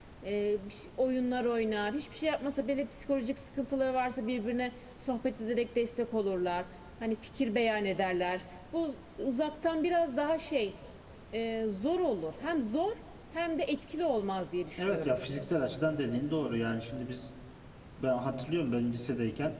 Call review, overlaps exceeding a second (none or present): none